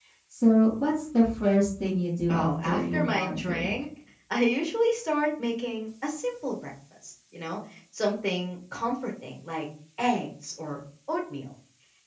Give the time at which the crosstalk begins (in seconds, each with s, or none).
2.3 s